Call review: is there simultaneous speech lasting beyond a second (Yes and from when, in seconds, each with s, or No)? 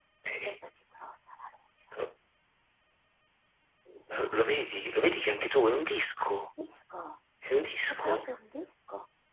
No